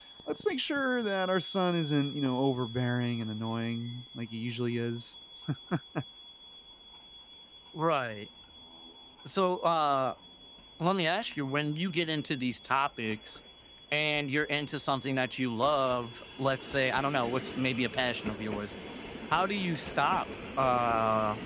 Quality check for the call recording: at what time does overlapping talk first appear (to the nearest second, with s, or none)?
none